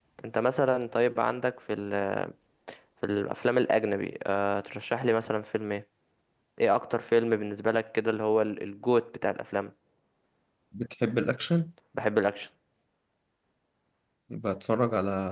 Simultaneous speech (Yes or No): No